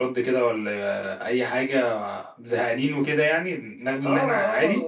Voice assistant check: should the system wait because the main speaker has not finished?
No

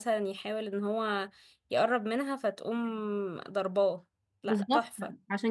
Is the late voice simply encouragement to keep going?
No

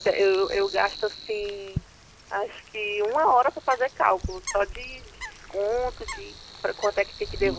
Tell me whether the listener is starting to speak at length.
Yes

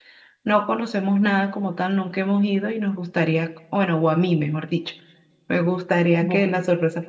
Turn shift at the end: No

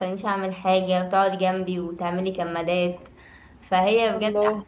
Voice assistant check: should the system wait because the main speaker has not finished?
Yes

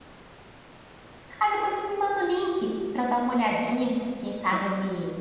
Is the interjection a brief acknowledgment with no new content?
Yes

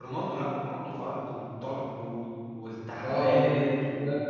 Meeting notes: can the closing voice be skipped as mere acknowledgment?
No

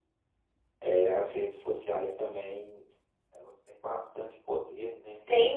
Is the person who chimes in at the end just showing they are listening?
No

